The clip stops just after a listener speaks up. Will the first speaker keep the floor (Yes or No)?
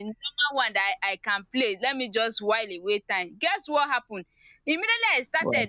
Yes